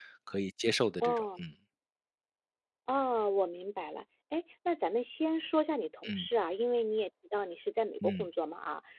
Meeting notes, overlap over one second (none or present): none